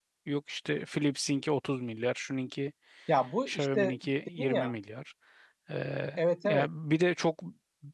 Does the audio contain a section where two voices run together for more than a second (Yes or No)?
No